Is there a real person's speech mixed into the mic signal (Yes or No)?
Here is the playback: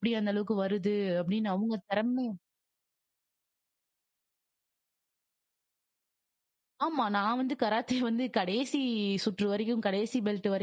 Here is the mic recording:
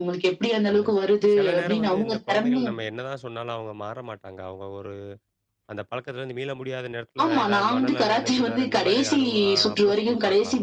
Yes